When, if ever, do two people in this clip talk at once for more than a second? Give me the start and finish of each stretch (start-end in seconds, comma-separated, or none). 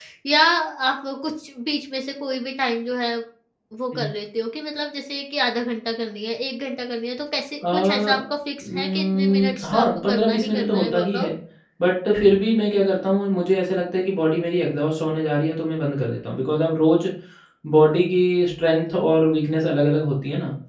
8.6-11.3